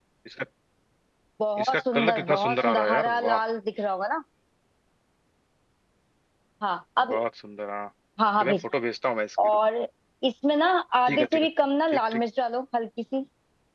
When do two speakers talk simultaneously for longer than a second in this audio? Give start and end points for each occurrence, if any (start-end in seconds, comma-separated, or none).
1.6-3.4